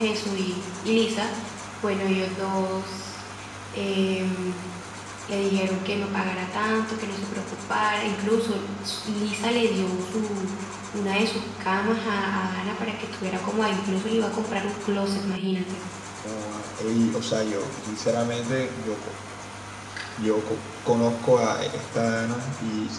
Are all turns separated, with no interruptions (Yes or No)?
Yes